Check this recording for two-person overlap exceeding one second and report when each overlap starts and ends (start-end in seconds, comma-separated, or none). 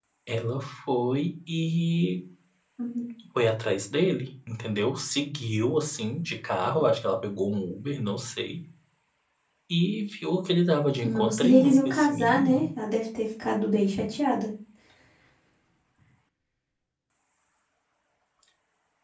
11.0-12.7